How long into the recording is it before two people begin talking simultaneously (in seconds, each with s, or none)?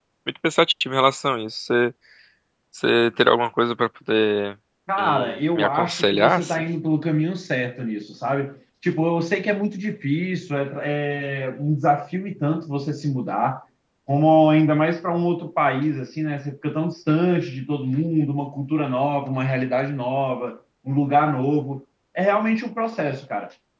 5.0 s